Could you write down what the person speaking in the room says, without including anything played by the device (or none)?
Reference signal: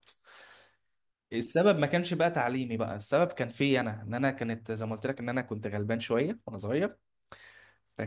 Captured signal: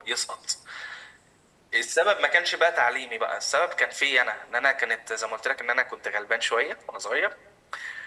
none